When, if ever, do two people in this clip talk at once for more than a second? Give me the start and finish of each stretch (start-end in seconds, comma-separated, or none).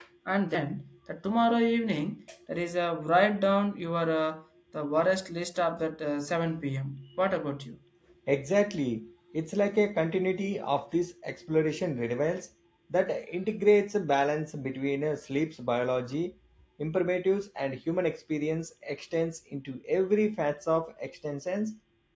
none